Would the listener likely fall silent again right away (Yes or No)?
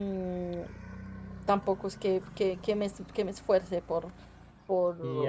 No